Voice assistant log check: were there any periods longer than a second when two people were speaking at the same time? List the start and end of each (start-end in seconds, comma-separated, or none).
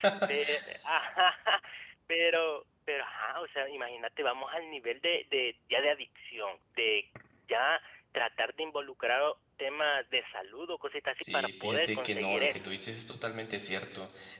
11.2-12.7